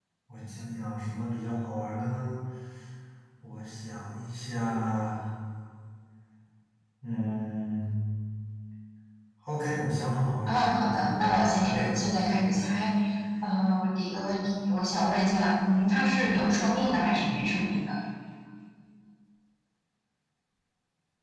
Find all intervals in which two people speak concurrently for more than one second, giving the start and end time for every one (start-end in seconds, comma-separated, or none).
10.5-12.6